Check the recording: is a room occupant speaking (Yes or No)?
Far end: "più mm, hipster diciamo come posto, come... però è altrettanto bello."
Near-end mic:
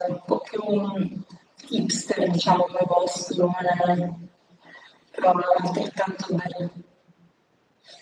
No